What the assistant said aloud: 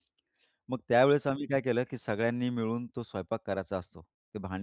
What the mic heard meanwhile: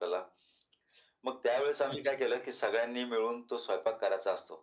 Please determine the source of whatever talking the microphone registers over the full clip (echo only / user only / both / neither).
both